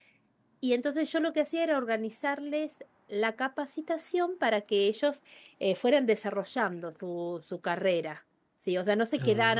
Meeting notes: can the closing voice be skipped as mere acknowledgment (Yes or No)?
Yes